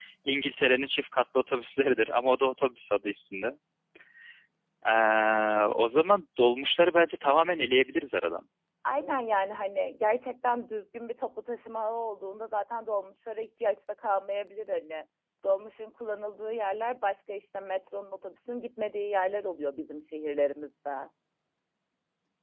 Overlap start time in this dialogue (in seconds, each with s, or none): none